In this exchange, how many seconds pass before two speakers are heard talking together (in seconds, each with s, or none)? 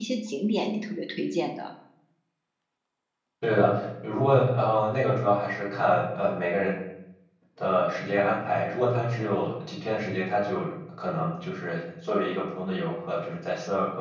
none